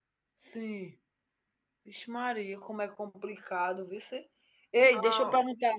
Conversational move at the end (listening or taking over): listening